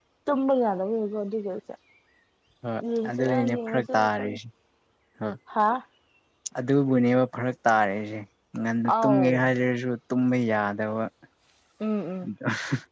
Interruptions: present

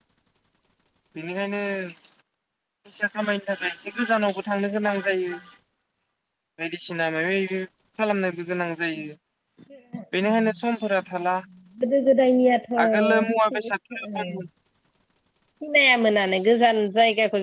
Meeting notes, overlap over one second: none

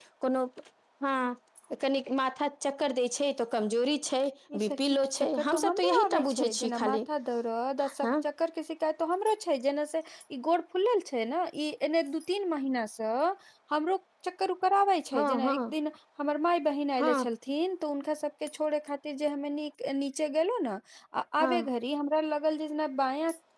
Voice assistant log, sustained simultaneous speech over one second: present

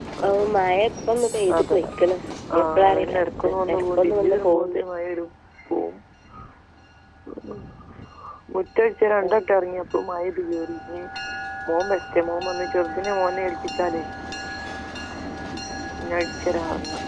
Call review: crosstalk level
present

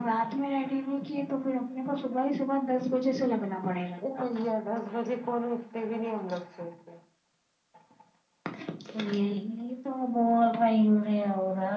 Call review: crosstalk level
none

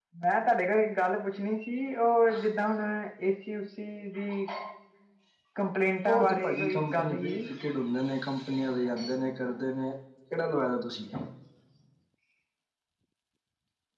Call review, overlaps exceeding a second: present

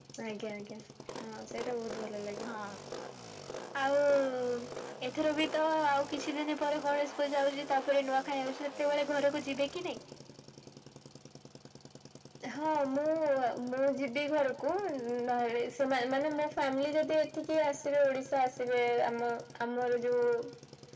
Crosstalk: none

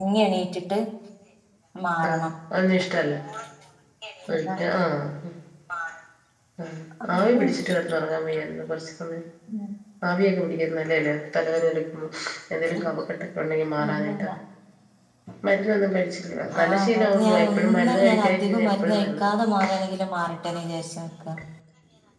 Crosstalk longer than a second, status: present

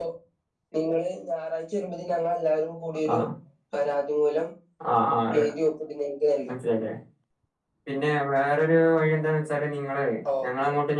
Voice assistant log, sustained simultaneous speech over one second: none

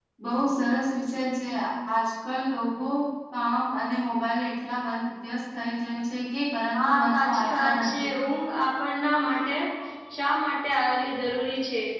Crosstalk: present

